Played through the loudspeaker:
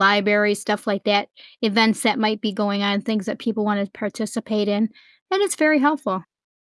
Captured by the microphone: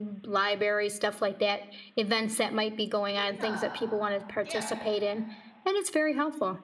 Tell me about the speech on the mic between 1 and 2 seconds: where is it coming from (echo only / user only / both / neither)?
echo only